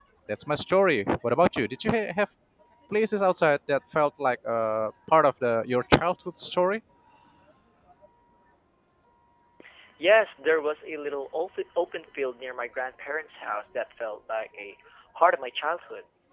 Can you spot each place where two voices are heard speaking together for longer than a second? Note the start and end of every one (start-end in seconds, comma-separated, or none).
none